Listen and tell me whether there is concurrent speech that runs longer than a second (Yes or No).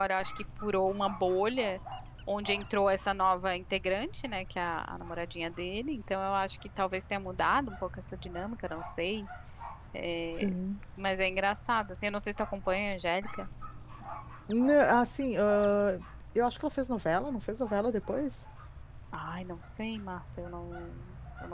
No